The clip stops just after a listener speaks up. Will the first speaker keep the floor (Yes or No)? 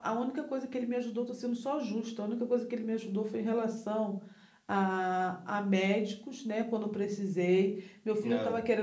Yes